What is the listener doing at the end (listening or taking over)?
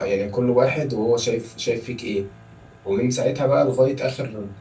listening